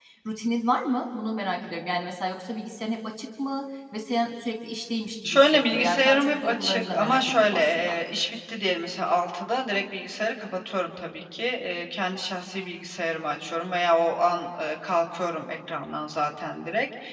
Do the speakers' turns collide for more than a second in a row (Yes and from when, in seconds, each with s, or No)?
Yes, from 5.2 s